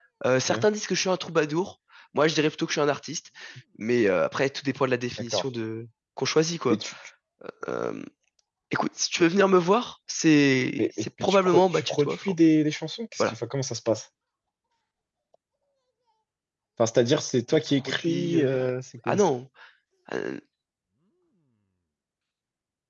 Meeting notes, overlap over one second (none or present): present